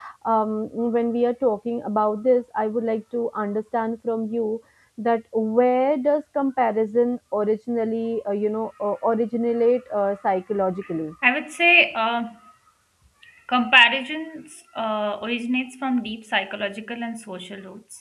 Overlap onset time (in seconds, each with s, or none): none